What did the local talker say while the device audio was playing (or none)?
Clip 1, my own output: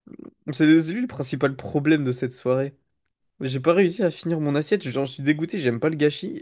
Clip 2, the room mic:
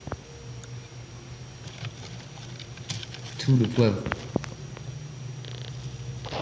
Tout le poivre,